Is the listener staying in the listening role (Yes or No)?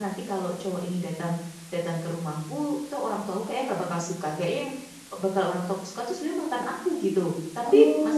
Yes